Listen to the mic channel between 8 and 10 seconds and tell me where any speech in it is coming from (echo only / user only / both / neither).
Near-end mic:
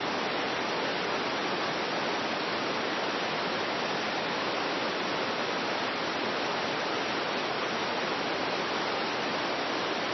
neither